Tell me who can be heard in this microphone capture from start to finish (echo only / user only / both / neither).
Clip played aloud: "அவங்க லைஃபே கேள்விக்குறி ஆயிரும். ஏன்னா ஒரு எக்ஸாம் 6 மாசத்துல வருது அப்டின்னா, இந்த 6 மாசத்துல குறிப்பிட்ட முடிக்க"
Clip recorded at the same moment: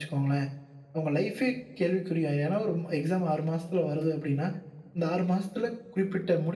echo only